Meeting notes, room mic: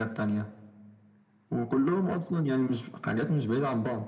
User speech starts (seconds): none

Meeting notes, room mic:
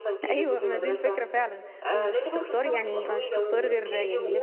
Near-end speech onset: 0.3 s

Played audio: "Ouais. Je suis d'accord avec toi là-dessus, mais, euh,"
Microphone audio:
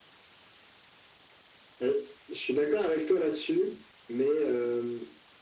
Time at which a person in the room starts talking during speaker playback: none

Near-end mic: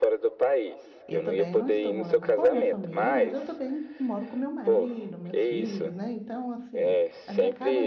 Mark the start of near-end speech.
1.1 s

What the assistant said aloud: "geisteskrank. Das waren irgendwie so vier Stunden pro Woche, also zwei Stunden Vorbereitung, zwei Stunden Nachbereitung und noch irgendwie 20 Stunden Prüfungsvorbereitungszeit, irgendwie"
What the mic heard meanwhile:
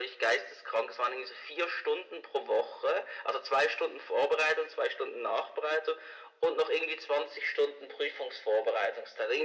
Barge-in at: none

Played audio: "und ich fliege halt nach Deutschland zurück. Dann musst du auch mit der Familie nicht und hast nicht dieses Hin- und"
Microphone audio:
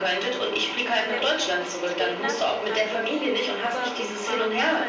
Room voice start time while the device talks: 1.0 s

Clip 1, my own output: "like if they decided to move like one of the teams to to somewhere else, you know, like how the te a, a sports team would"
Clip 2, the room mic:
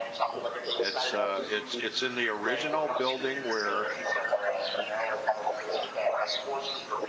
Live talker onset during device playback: 0.8 s

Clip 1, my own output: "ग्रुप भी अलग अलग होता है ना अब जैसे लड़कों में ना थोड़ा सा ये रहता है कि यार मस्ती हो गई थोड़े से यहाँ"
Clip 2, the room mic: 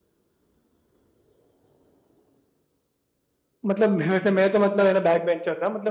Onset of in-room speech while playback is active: 3.7 s

